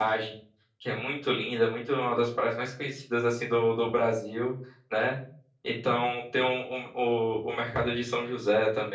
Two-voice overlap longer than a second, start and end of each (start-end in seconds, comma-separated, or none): none